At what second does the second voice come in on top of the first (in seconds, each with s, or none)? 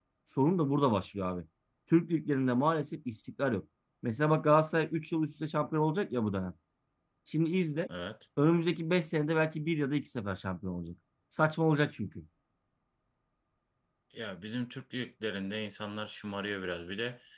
none